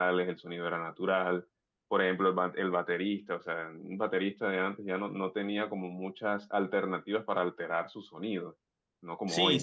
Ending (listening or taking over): taking over